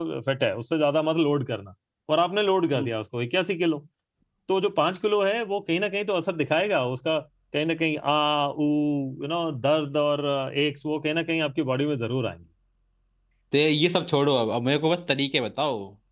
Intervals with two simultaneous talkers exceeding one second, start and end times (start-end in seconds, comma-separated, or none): none